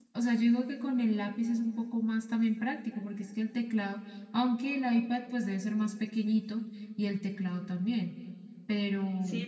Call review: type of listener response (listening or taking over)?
taking over